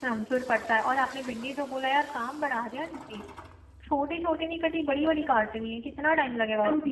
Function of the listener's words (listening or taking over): taking over